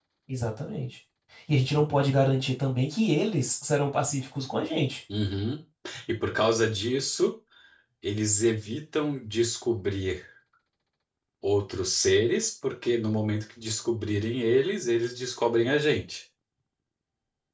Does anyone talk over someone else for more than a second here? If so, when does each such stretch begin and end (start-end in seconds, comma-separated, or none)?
none